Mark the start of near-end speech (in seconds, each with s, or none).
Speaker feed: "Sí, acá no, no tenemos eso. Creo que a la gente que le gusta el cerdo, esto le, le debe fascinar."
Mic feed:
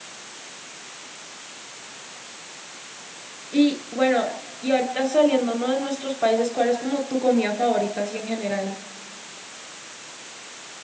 3.5 s